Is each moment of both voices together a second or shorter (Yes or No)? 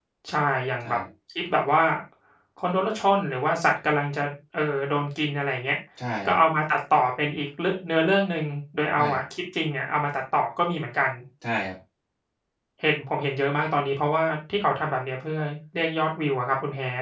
Yes